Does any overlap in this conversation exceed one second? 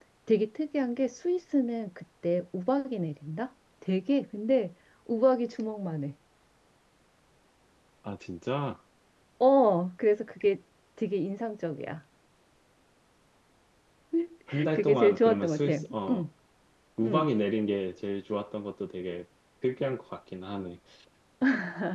Yes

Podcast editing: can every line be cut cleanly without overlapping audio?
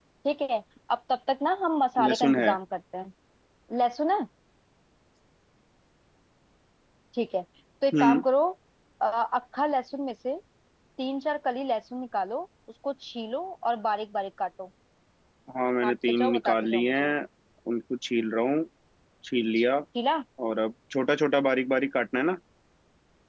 No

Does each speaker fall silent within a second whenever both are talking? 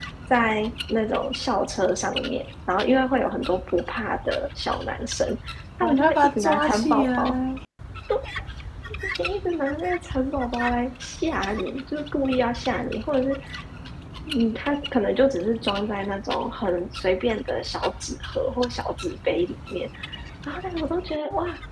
No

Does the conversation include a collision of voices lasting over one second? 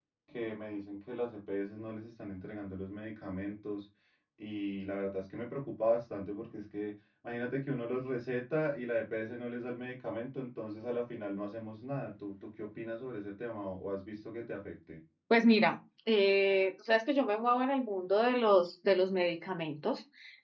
No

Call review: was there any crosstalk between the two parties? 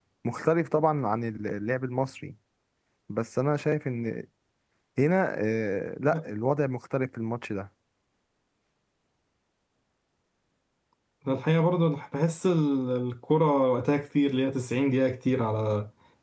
No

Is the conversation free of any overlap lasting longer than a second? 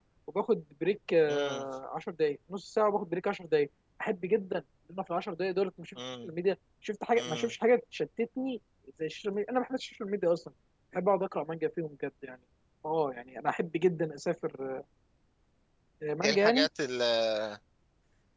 Yes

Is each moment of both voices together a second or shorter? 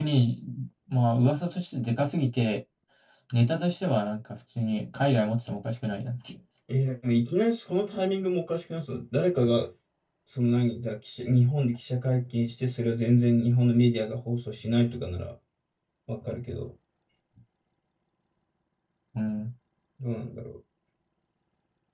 Yes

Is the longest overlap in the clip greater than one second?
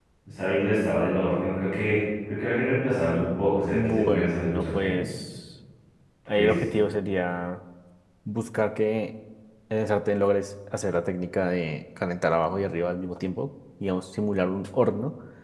Yes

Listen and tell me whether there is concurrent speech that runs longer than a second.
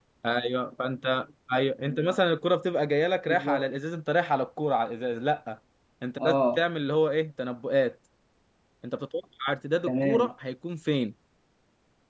No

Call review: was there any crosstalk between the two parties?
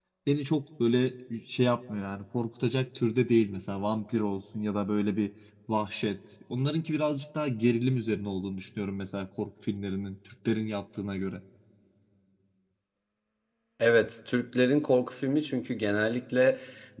No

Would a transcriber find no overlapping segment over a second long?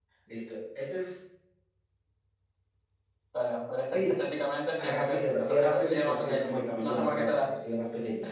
No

